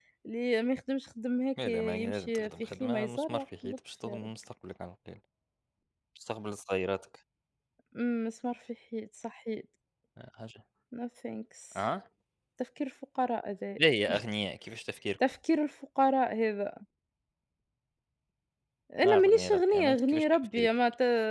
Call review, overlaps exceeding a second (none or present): present